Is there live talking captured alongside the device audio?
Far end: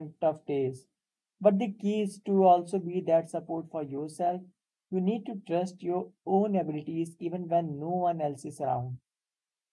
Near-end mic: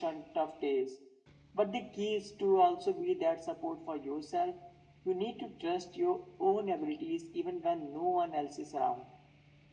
No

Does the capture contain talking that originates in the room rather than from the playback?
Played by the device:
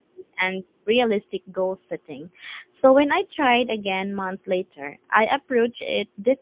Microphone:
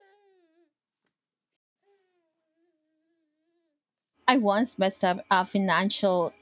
Yes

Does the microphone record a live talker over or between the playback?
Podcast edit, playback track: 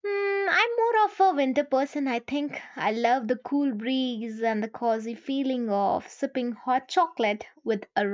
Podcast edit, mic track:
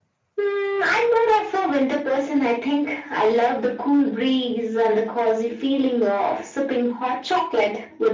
No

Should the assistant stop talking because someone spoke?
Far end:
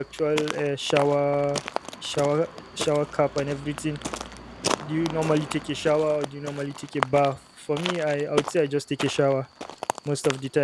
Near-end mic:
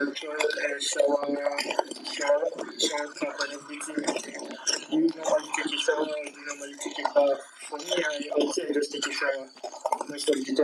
No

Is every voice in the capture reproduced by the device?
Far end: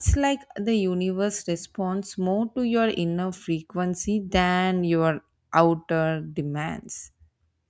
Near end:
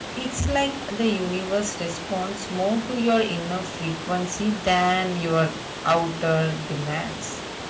Yes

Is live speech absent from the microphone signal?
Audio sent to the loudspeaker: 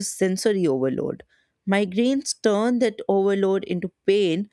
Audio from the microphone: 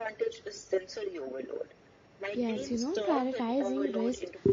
No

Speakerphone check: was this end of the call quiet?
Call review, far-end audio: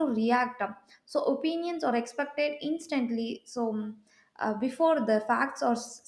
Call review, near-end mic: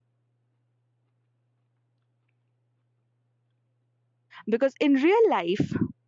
No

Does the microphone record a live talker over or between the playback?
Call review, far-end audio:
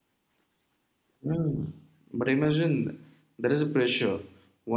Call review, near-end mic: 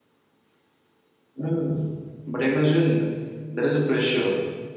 No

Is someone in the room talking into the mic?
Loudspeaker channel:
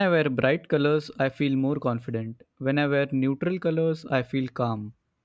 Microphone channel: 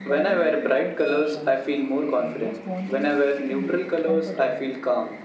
Yes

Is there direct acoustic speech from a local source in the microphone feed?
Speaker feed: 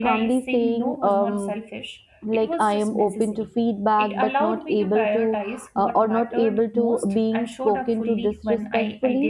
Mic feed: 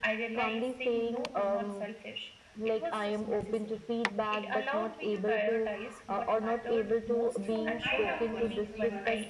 Yes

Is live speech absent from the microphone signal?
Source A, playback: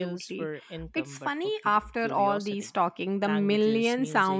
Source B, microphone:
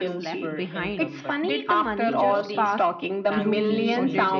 No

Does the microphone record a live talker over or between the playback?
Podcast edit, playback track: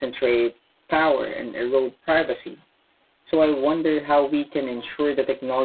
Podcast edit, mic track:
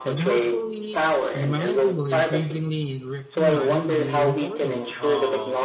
Yes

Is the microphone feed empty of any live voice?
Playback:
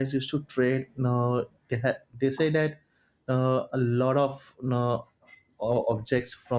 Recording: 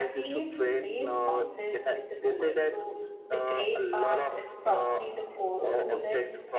No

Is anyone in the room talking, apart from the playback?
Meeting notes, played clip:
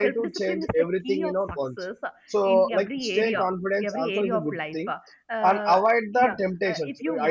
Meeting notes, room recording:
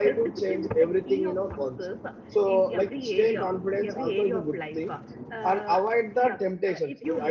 No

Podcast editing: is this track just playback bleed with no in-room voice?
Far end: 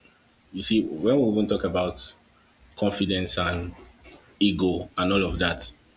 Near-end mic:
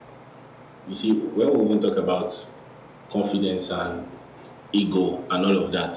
Yes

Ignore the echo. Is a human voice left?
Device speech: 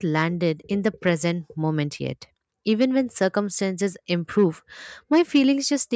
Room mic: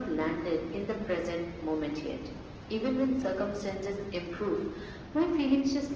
No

